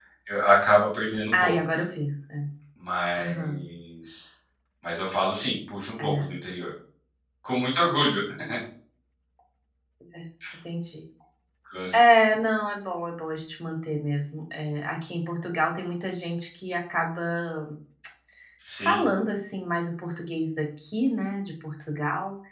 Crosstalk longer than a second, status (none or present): none